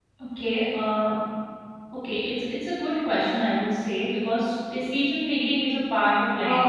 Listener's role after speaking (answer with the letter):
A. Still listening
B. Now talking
B